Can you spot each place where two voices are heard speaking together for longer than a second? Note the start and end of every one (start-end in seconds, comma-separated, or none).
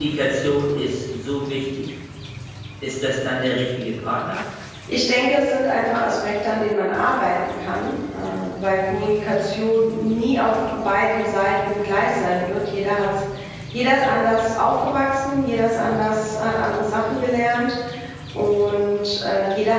none